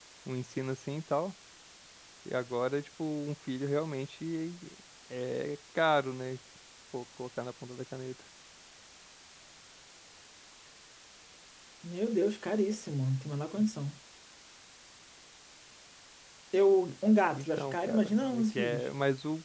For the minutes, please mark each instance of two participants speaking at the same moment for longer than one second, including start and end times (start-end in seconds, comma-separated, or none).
17.3-18.9